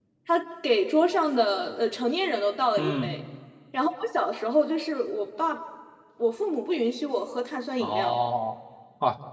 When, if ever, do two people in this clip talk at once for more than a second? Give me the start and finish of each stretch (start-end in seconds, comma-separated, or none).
none